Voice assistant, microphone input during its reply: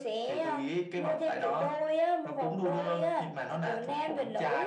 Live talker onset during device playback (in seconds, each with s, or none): none